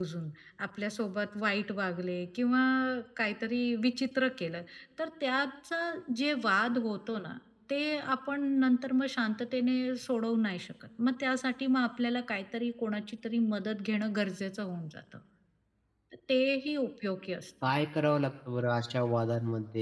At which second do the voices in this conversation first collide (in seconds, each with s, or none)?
none